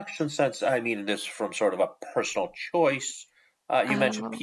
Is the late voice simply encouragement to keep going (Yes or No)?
Yes